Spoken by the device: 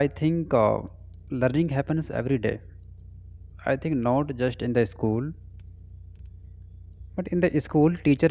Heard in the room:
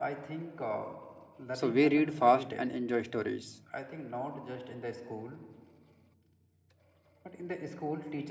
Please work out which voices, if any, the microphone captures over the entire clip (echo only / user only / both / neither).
both